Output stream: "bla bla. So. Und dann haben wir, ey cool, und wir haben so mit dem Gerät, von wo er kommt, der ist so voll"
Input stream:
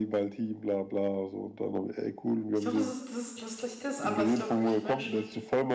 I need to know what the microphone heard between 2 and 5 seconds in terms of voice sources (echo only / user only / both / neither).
both